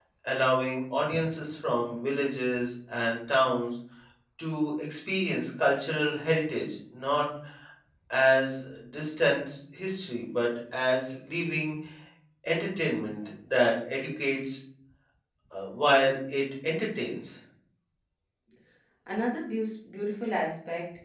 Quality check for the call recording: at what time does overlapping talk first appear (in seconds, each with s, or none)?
none